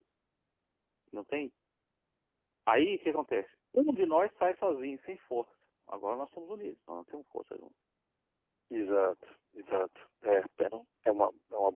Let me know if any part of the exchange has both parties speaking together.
No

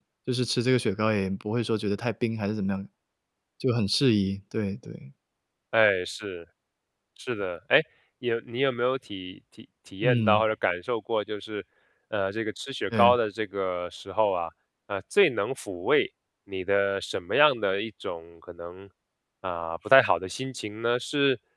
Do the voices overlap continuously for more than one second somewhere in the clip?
No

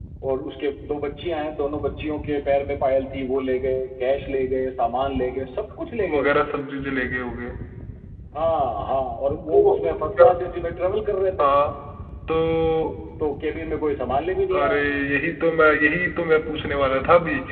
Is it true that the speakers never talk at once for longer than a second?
Yes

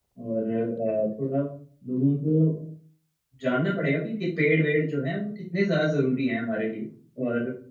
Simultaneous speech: No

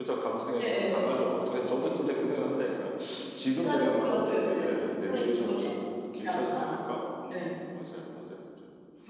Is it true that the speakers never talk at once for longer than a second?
No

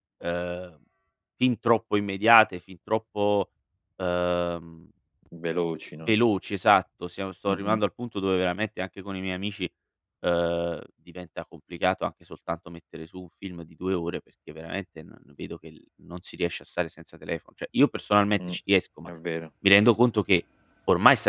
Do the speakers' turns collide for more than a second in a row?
No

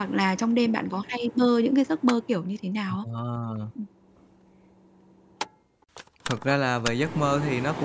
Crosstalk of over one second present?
No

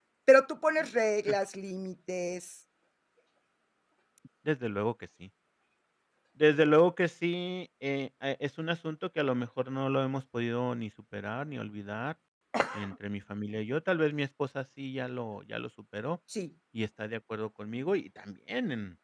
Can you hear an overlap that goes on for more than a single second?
No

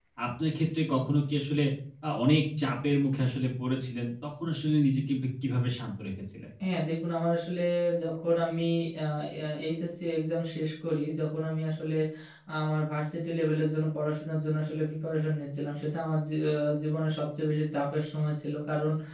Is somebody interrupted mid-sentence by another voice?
No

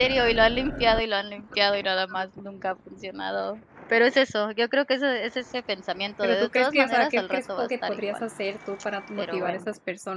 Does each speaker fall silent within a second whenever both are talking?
No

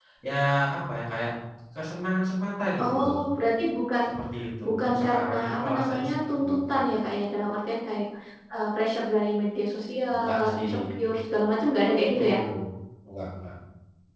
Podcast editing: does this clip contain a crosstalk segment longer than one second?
Yes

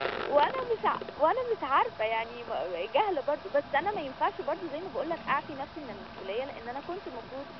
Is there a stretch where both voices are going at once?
No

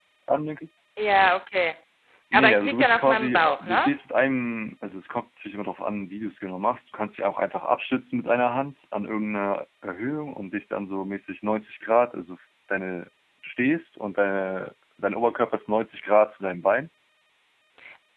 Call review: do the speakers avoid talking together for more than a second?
No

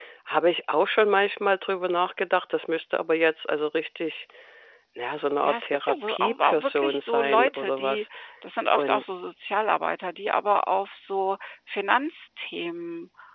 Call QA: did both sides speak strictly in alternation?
No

